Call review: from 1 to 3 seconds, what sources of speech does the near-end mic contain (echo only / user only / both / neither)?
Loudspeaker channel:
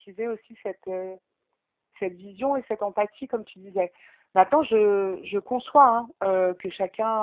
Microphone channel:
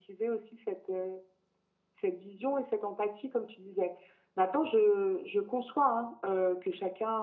echo only